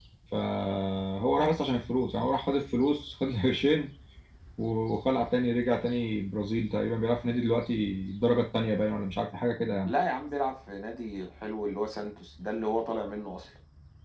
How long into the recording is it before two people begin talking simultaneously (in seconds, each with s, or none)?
none